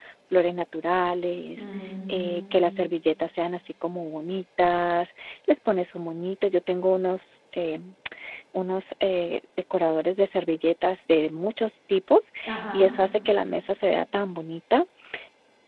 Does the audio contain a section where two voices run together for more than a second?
No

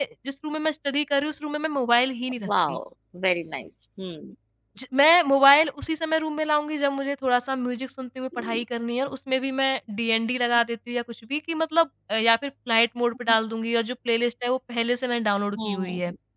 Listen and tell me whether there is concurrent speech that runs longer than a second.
No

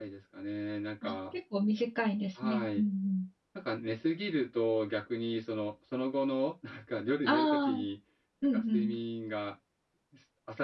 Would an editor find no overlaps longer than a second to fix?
Yes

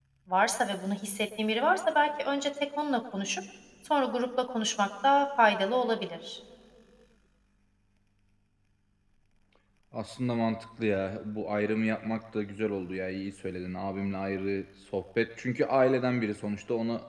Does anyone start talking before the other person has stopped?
No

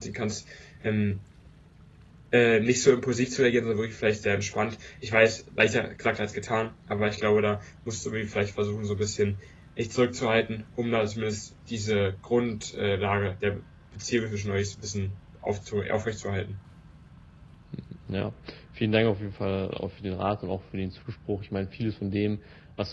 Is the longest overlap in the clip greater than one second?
No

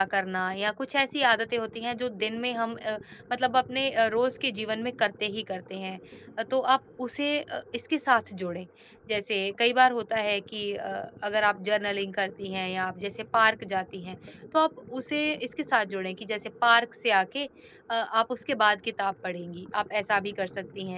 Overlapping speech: No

